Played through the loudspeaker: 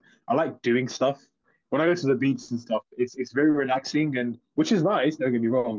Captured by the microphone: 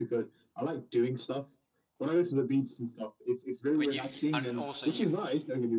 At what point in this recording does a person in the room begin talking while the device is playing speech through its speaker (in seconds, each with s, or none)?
3.7 s